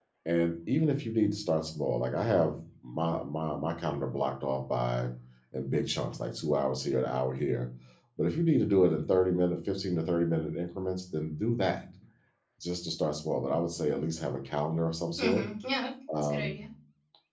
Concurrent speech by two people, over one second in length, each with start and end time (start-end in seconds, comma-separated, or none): none